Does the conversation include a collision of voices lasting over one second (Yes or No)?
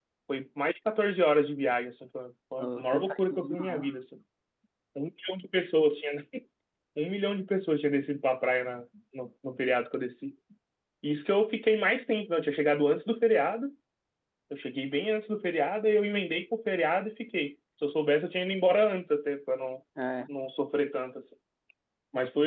Yes